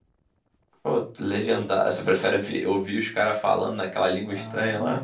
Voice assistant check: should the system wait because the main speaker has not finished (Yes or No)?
No